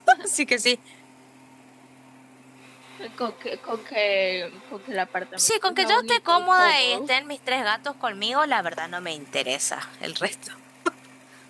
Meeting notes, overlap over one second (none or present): present